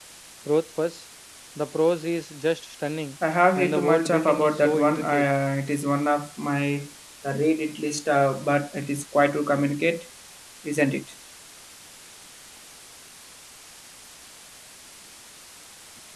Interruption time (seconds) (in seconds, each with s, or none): 3.5 s